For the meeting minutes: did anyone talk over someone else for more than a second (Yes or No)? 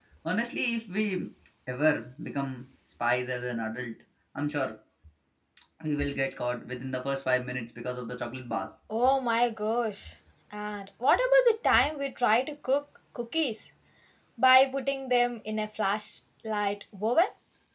No